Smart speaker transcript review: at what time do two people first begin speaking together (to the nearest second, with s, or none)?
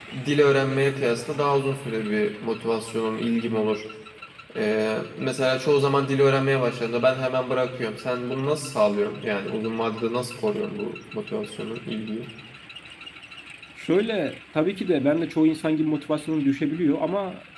none